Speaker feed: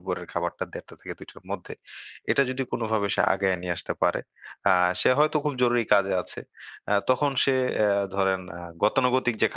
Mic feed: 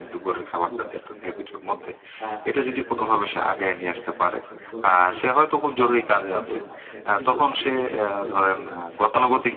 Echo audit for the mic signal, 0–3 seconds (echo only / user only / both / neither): both